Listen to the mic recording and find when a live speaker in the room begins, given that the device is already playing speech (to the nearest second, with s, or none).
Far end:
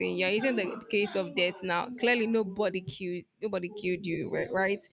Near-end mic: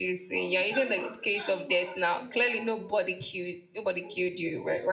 none